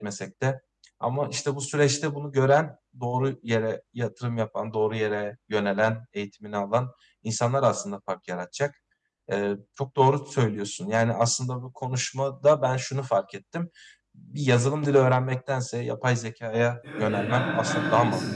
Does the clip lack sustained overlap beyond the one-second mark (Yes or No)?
No